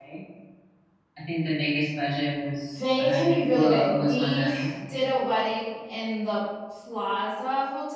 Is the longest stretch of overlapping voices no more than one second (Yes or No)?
No